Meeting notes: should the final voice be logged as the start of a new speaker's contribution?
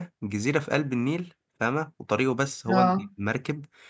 No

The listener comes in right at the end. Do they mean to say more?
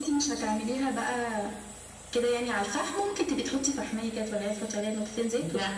Yes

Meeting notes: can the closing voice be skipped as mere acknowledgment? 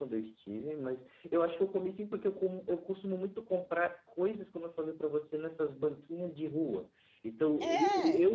Yes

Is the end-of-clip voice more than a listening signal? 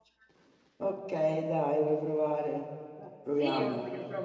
Yes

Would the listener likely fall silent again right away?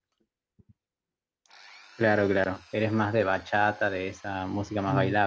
No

